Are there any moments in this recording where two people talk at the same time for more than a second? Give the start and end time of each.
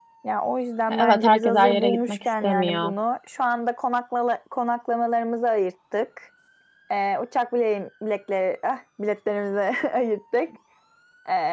1.0-2.9

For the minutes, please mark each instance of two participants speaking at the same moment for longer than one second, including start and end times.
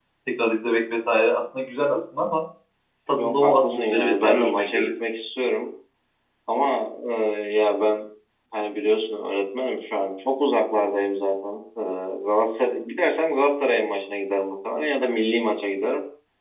3.2-4.9

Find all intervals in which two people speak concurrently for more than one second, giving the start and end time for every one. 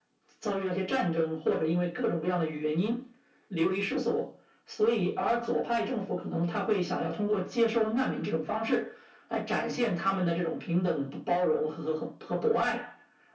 none

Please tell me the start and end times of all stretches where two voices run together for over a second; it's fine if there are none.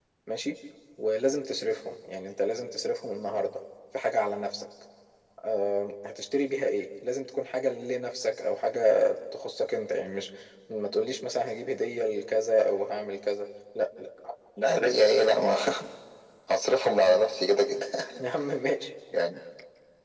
none

